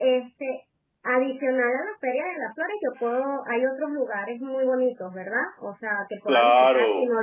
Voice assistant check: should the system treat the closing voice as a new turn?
Yes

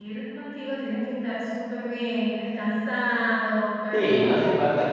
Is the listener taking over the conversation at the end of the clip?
Yes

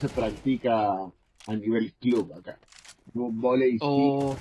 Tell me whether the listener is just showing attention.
Yes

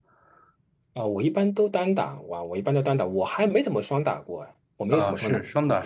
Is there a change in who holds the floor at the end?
Yes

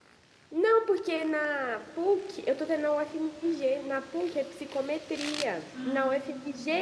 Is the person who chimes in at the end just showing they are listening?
Yes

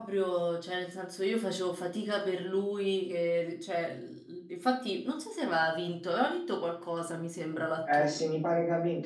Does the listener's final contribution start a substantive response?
Yes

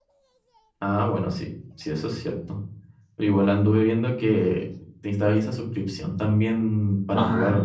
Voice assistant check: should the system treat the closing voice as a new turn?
Yes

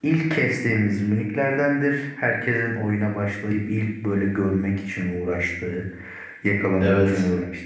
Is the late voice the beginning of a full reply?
No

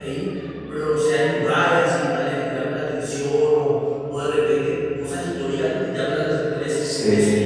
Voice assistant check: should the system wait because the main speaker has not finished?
No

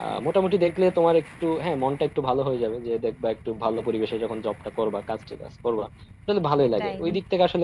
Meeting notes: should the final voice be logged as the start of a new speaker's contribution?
No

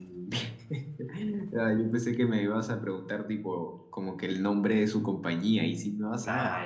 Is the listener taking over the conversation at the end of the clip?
Yes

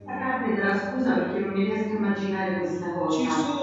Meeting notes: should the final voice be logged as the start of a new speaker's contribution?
Yes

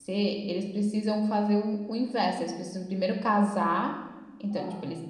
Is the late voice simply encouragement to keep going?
Yes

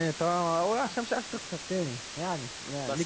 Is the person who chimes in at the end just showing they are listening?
No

